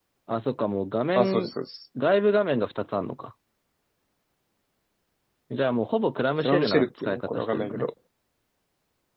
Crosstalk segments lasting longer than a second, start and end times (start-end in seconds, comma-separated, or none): 6.4-7.9